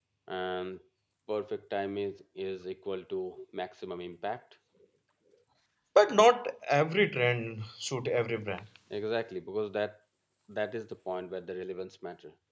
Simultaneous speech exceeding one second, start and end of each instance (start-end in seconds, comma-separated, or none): none